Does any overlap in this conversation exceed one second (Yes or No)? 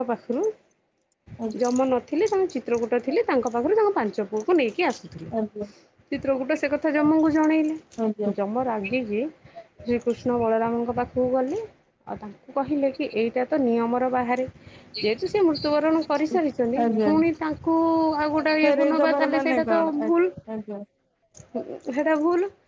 Yes